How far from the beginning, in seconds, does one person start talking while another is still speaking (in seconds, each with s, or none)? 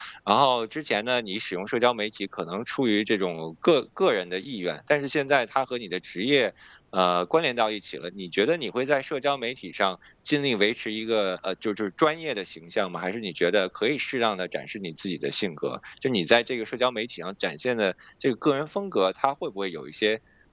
none